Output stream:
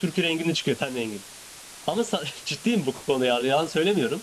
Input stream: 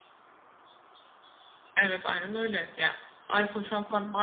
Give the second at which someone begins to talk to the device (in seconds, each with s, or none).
1.8 s